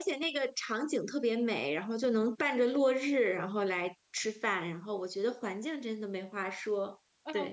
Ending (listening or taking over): taking over